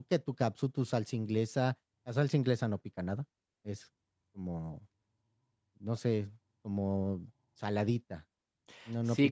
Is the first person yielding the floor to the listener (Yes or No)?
Yes